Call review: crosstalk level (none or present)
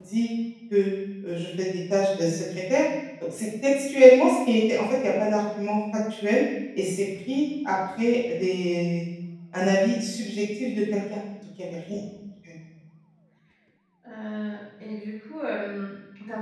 none